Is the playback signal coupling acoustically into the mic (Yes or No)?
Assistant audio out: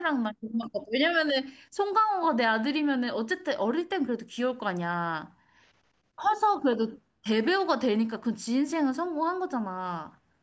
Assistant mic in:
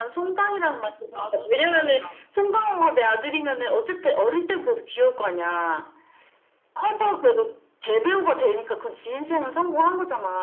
Yes